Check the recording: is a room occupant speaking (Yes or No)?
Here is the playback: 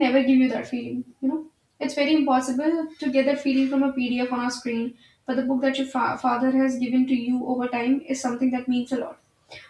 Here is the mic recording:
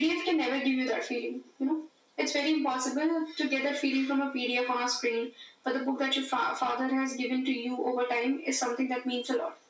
No